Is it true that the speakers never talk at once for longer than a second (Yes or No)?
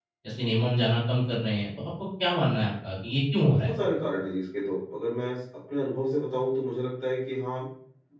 Yes